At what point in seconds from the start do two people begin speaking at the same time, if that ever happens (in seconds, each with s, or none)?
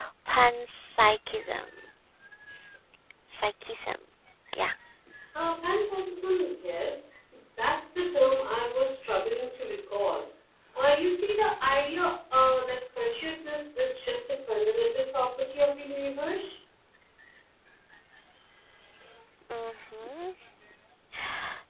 none